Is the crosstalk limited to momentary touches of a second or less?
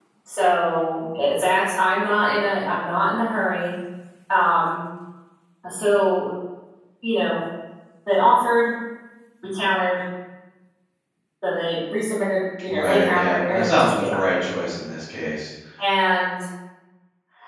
No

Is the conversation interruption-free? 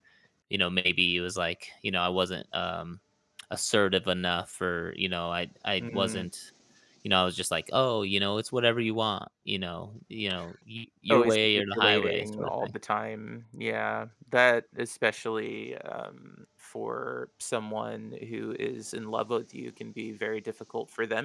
No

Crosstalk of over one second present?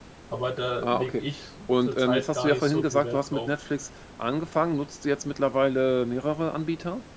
Yes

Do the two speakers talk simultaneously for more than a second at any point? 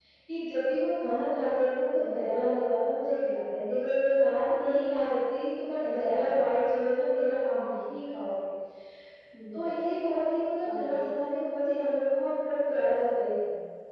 No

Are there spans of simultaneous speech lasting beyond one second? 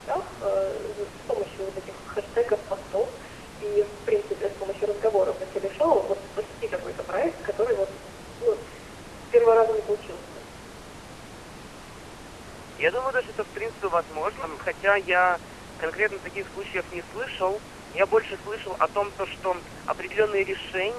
No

